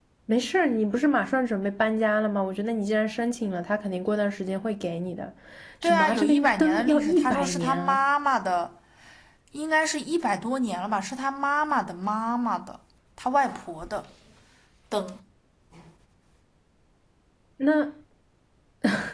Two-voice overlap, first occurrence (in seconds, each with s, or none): 5.8 s